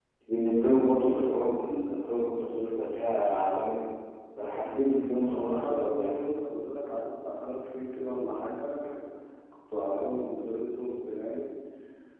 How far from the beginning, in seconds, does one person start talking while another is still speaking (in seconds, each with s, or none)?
4.8 s